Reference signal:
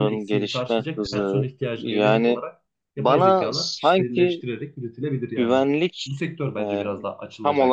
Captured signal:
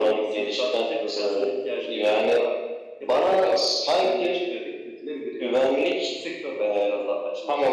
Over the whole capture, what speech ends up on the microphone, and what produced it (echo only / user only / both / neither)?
echo only